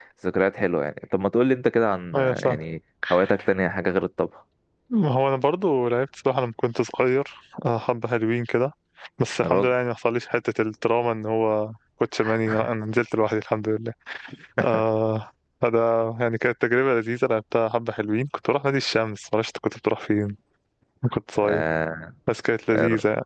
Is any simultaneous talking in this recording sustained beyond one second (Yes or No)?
No